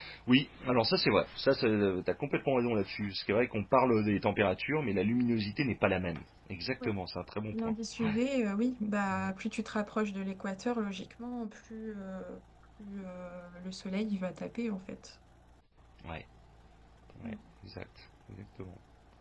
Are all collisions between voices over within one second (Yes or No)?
Yes